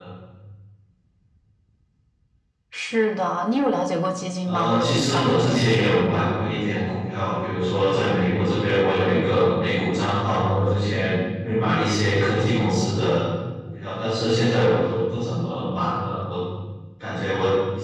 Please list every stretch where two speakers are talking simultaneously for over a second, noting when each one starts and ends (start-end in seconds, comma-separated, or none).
4.5-5.7